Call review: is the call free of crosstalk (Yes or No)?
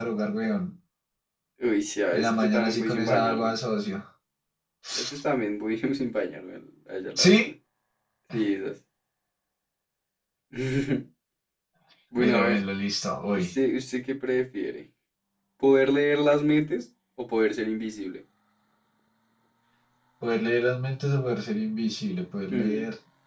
No